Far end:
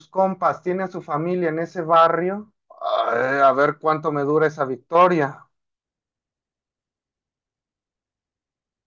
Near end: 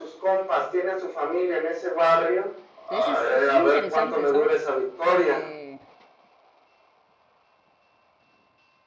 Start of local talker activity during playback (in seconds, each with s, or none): 2.9 s